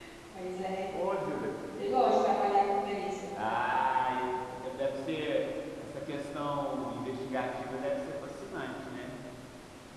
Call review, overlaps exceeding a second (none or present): none